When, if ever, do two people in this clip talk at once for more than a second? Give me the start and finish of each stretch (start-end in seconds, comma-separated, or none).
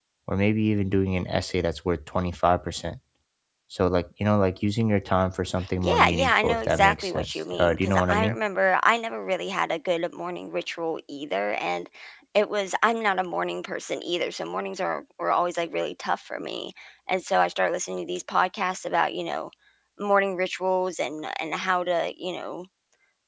5.8-8.3